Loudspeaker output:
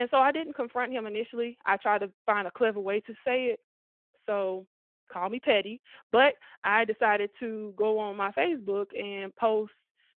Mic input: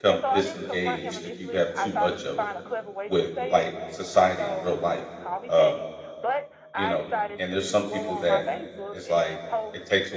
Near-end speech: present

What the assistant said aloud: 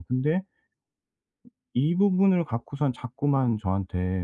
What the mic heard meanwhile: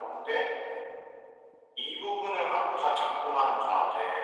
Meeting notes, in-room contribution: none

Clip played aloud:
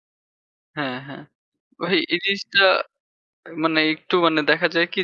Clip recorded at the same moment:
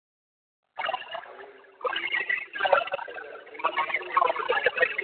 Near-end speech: present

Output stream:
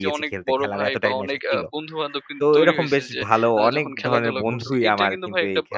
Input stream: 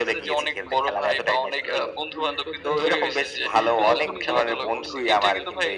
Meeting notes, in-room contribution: present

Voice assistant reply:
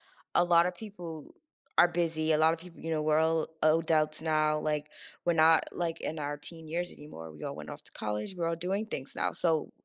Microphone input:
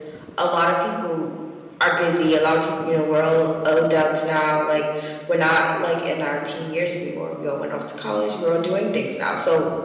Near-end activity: none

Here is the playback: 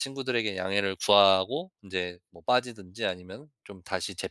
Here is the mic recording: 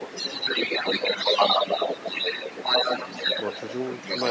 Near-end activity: present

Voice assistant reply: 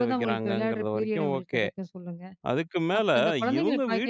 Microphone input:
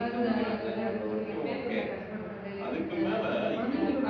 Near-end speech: present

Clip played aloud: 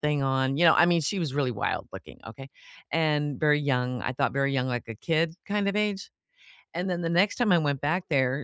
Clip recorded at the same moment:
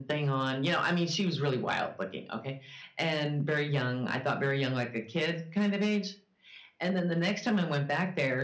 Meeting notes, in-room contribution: none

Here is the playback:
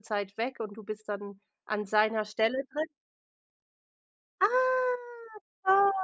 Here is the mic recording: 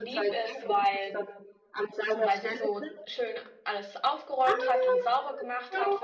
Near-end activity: present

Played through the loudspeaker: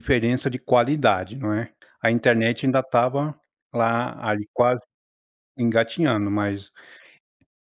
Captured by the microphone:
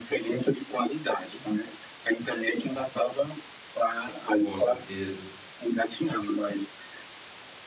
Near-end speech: present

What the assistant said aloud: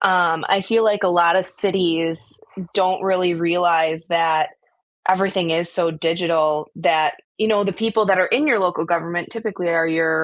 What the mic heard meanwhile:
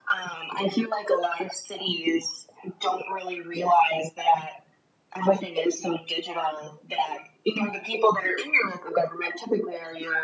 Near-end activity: none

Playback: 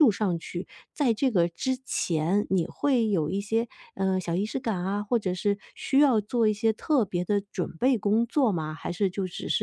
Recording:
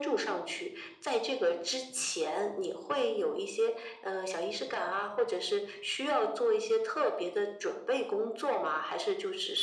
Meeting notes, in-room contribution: none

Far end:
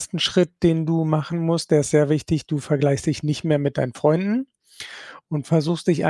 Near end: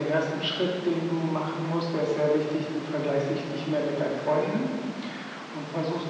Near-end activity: none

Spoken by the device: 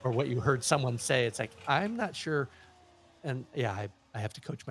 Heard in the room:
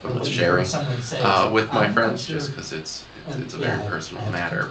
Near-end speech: present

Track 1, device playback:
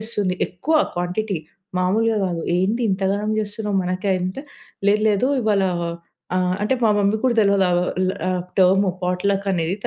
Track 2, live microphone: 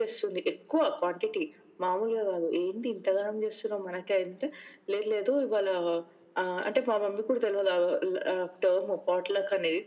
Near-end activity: none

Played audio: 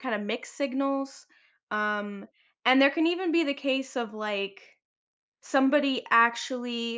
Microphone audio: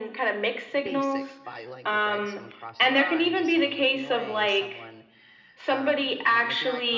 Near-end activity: present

